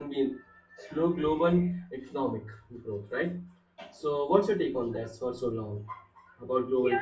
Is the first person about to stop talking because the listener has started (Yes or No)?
Yes